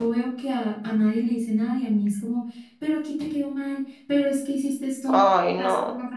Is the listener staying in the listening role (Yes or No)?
Yes